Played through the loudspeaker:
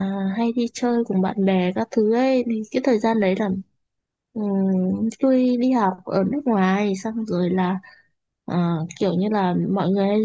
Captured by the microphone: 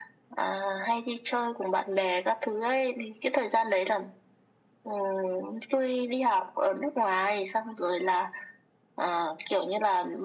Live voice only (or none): none